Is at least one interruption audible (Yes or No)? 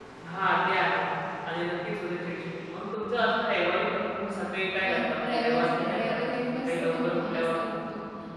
Yes